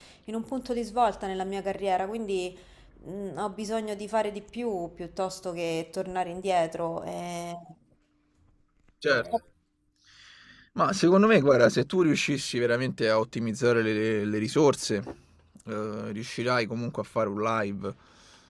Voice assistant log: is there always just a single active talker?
Yes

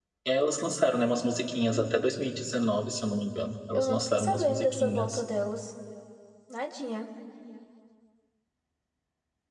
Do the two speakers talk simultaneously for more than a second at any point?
Yes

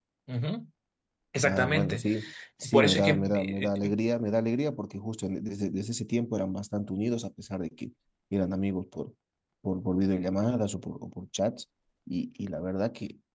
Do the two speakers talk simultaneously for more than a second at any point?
Yes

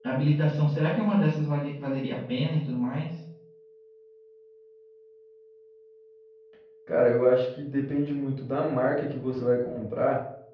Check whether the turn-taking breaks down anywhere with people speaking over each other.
No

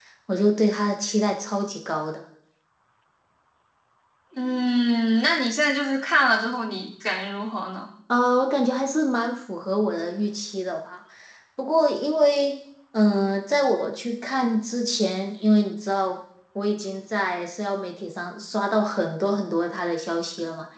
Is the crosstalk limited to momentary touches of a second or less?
Yes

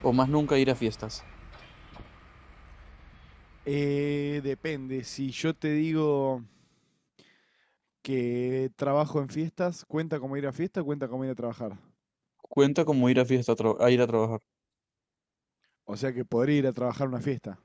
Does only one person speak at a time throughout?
Yes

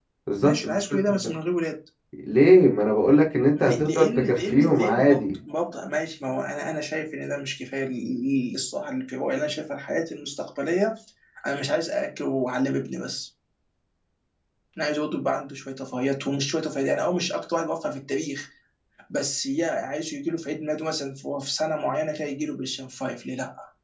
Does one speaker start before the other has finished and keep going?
Yes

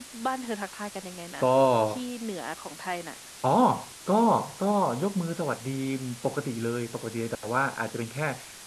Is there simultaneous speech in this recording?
No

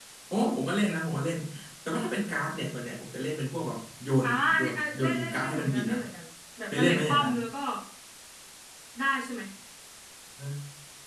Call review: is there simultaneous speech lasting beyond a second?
Yes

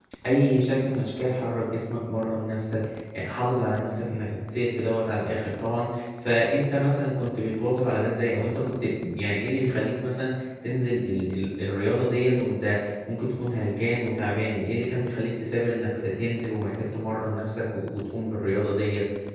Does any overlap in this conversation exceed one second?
No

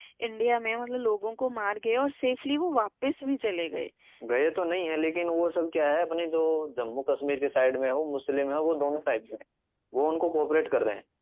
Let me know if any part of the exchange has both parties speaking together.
No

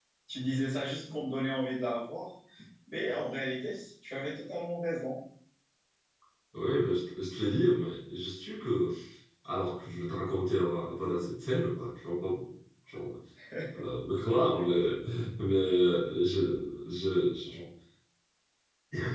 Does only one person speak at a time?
Yes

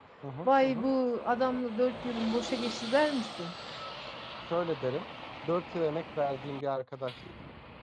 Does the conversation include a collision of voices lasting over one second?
No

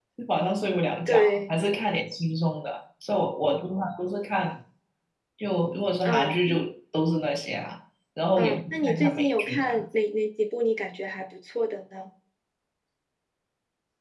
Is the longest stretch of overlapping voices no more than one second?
No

